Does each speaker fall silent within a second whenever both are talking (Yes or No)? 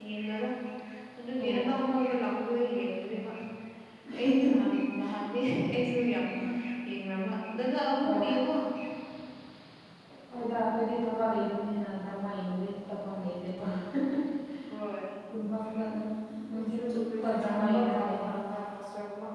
No